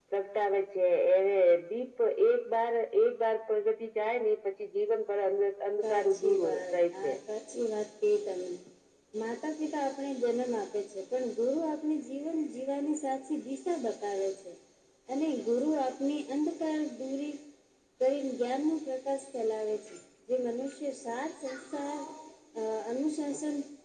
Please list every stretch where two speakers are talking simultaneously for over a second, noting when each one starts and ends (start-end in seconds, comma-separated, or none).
5.9-7.1